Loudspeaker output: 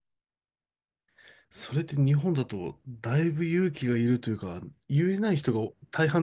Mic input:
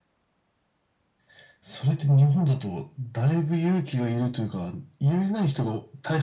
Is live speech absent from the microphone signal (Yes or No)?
Yes